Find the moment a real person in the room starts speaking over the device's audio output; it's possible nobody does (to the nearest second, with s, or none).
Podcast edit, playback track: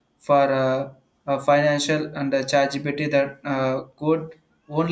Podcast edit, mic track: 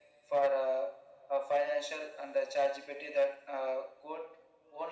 none